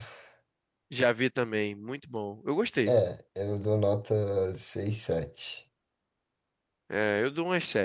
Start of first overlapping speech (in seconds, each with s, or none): none